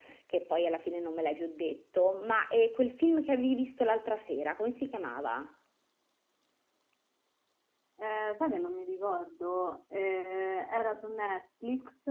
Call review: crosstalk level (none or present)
none